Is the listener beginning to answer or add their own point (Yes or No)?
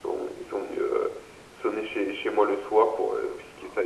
No